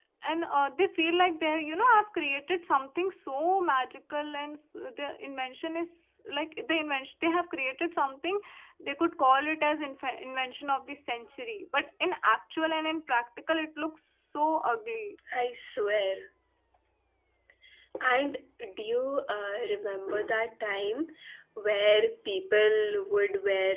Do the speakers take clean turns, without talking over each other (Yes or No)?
Yes